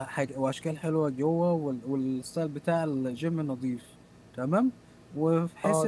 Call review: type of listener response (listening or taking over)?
listening